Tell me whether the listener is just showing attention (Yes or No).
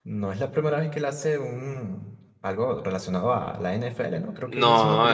No